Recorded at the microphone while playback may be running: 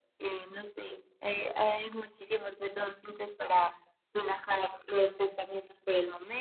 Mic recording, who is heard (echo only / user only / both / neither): echo only